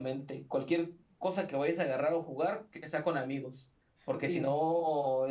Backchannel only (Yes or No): Yes